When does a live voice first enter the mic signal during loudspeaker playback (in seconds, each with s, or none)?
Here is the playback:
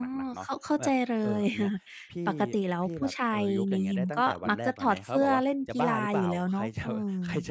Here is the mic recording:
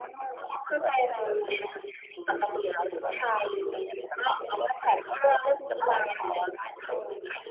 none